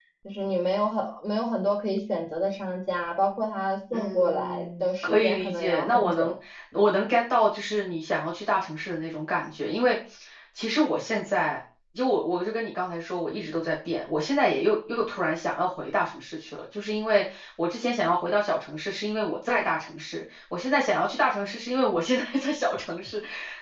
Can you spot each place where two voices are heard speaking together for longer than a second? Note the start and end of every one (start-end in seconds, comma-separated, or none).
3.9-6.3